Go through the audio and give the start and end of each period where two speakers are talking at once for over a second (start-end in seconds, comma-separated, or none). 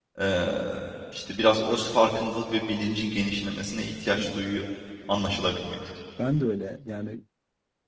none